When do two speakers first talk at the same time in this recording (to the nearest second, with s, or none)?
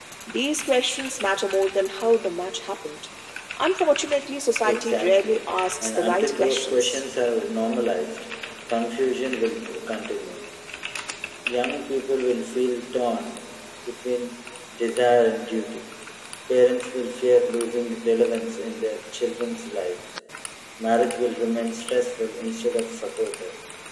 5 s